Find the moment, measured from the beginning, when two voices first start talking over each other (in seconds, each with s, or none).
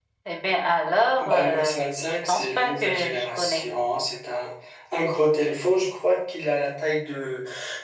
1.2 s